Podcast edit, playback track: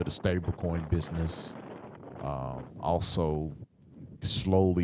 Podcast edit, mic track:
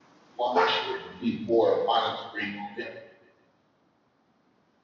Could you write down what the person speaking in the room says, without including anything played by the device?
watch and be more monitoring on it,

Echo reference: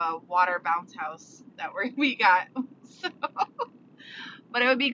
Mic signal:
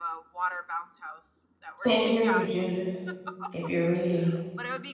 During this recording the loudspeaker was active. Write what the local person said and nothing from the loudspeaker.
Can't hear you, Judith. If you're reading,

